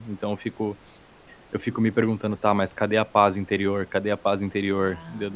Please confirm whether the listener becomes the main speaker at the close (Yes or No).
No